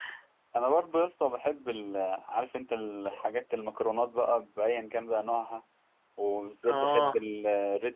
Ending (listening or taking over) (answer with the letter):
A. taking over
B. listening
B